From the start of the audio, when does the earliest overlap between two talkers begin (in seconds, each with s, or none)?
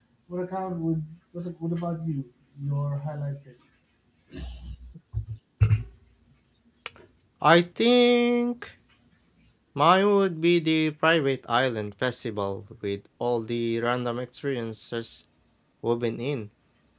none